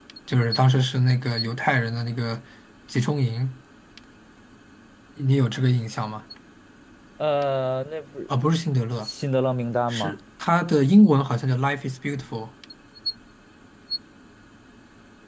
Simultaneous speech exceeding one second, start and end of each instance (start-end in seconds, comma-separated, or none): none